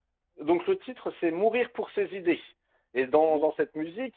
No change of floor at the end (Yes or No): Yes